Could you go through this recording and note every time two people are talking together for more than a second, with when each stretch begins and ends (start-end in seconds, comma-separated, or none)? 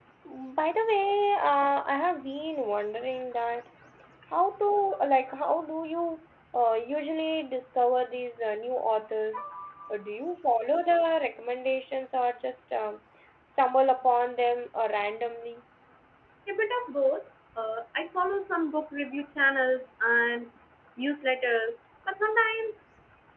none